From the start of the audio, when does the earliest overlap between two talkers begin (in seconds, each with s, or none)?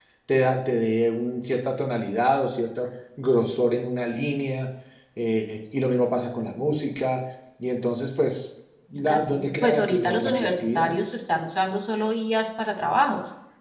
8.9 s